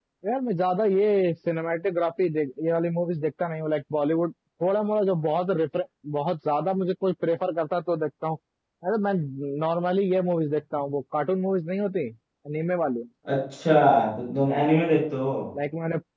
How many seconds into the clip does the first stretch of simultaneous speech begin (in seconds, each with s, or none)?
none